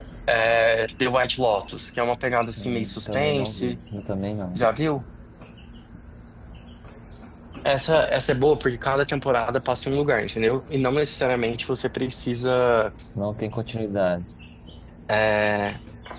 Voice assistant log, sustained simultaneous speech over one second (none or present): present